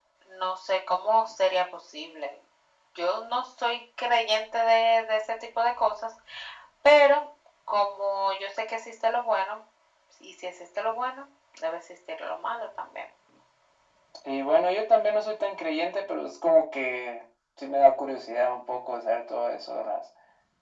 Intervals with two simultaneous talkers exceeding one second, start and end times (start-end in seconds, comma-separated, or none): none